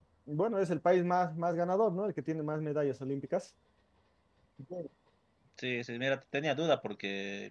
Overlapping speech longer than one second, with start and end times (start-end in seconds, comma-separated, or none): none